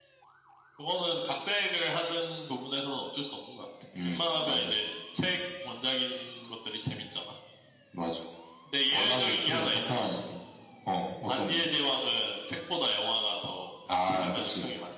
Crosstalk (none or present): present